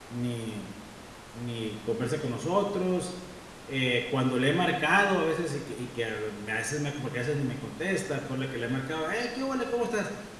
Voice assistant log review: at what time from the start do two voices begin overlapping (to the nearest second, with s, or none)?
none